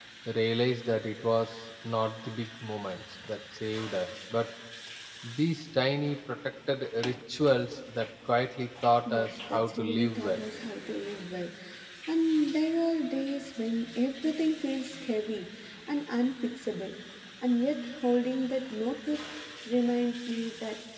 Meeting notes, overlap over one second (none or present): present